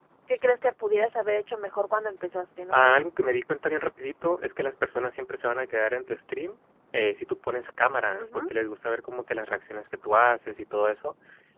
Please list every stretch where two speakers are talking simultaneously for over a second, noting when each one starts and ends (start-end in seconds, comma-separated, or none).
none